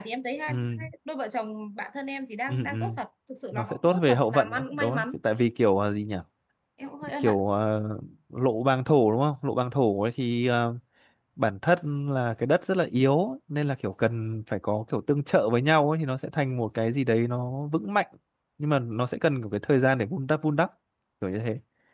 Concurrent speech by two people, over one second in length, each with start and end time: 3.5-5.2

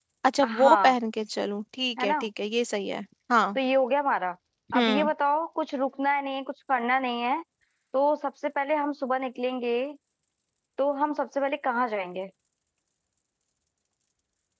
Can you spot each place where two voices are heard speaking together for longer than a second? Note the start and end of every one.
none

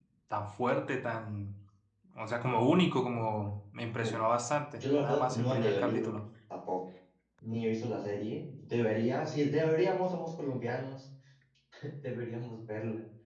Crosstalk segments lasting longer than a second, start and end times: 4.8-6.1

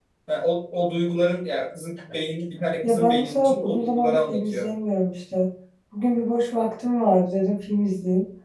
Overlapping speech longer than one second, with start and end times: 2.8-4.7

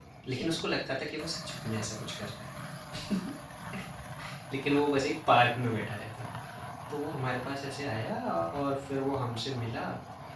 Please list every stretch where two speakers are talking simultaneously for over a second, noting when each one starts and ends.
none

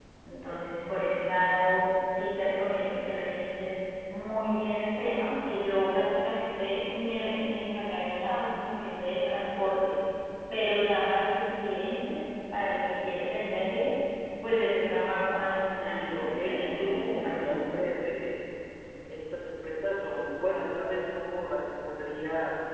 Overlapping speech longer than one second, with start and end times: 15.8-17.6

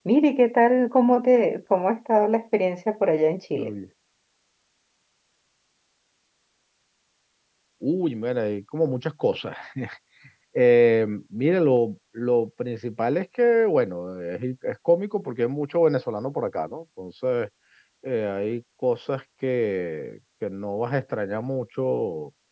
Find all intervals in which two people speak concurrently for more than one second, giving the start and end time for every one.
none

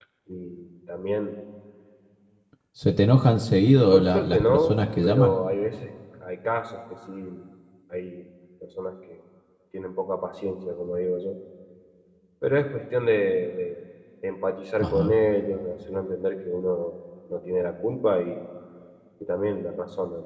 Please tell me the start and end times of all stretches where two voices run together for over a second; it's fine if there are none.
3.9-5.3

